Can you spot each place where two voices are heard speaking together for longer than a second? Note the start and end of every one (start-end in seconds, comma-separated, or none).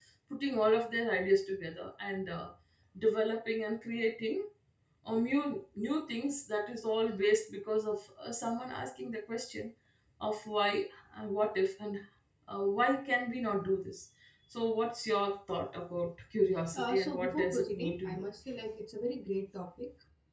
16.7-18.3